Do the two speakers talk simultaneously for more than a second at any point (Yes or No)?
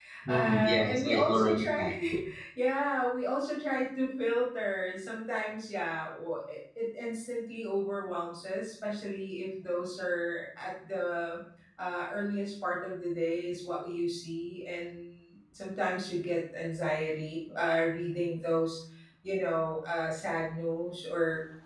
Yes